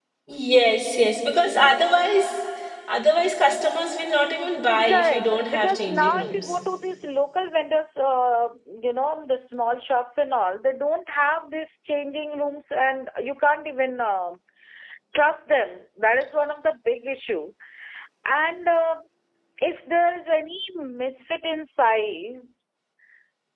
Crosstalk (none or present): present